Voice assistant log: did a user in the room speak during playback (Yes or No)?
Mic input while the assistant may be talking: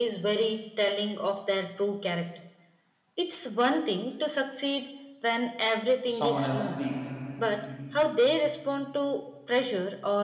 Yes